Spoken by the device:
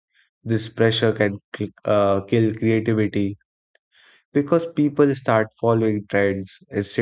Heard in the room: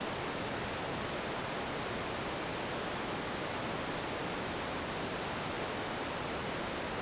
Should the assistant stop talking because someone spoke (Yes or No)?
No